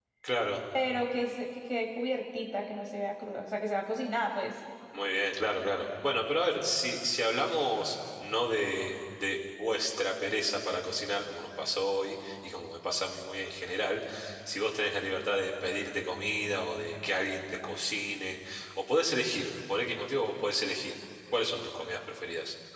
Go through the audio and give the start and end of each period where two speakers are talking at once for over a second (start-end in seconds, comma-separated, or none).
none